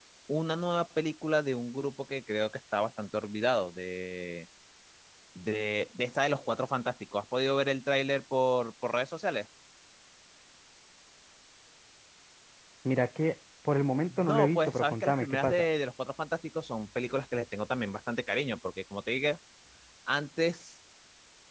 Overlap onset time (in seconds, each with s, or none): 14.1 s